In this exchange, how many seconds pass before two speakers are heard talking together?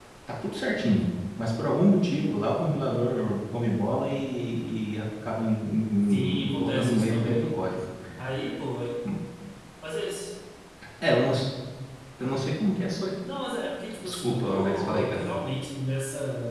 6.1 s

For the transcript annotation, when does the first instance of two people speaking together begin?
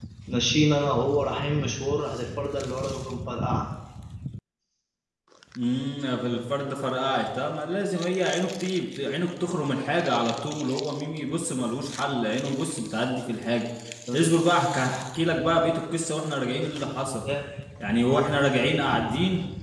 none

